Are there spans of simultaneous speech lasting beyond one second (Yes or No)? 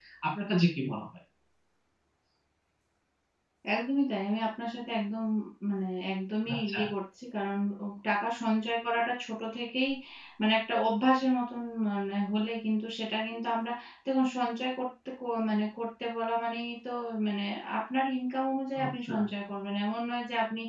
No